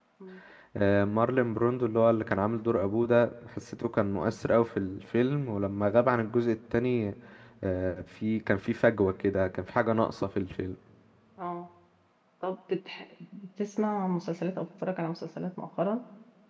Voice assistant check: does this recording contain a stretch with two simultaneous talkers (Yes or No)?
No